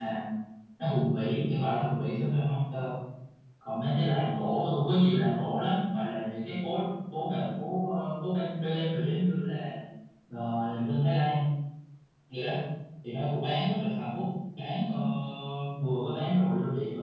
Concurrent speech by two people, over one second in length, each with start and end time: none

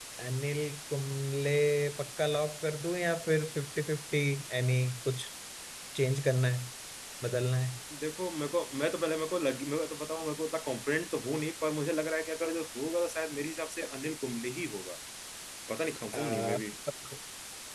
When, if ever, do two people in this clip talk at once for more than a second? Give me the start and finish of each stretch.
none

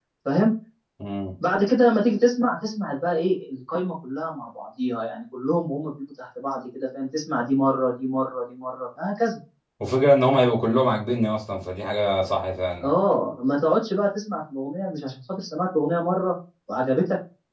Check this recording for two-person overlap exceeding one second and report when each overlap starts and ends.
none

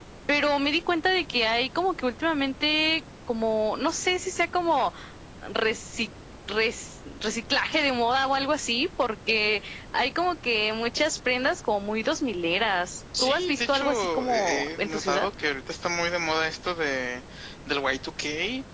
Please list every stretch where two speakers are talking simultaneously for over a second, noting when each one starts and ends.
13.2-15.3

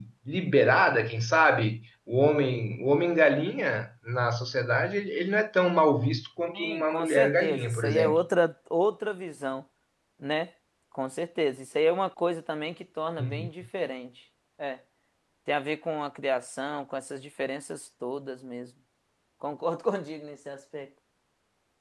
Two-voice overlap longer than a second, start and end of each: 6.5-8.2

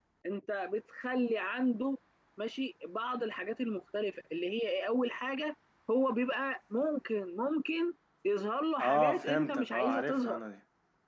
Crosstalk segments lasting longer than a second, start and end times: 8.8-10.4

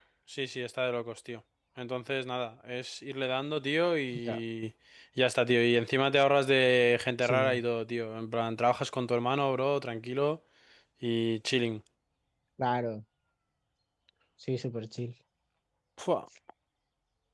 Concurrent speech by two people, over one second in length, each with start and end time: none

